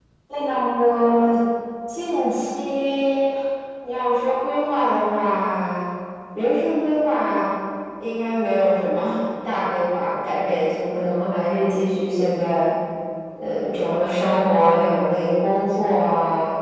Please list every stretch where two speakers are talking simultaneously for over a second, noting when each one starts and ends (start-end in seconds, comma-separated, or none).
none